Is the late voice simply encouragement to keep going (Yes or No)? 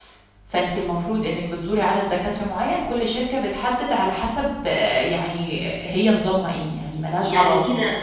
No